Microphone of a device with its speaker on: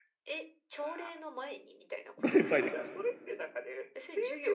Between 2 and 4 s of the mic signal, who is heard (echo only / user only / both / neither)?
both